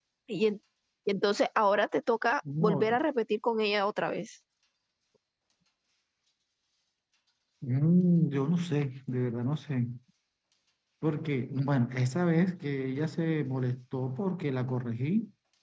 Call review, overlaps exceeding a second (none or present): none